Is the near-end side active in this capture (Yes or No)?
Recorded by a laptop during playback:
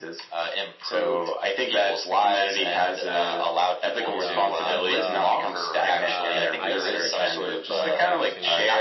Yes